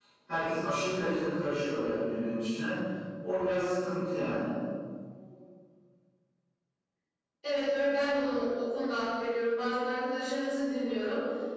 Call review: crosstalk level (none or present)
none